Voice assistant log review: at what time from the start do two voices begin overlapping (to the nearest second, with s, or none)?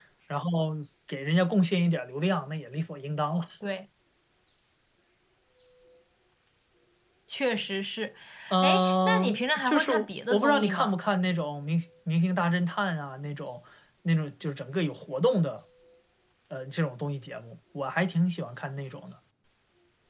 9 s